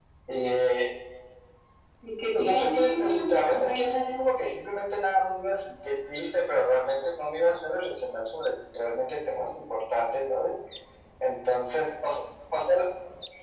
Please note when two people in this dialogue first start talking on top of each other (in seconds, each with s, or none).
2.4 s